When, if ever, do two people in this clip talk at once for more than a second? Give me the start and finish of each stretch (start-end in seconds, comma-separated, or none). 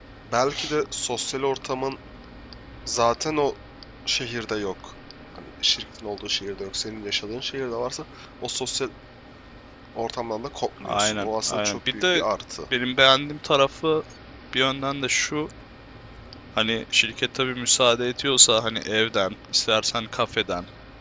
10.8-12.2